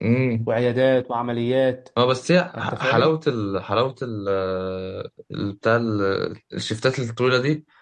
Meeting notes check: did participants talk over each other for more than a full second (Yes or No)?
No